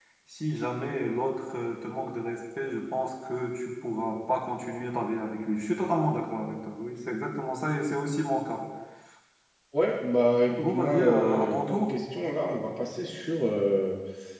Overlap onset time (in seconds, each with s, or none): 10.5 s